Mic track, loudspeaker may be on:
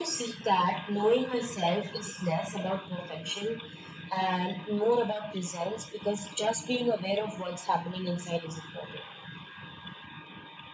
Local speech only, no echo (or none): none